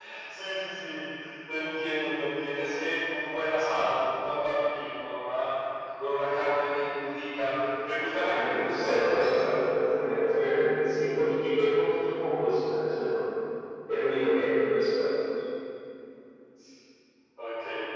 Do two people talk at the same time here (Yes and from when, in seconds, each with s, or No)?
Yes, from 8.0 s